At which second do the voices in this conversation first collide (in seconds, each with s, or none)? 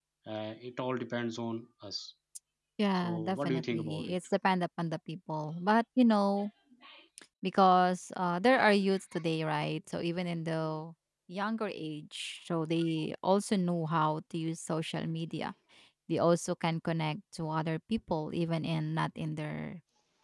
2.9 s